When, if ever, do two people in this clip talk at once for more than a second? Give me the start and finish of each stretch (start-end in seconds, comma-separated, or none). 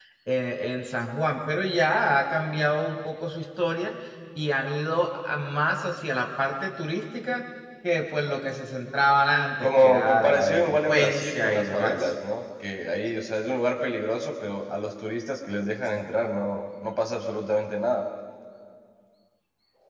9.6-12.1